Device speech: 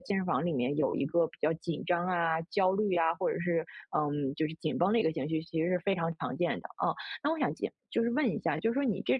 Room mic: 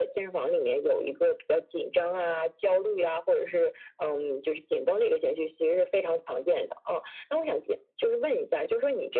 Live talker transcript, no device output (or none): none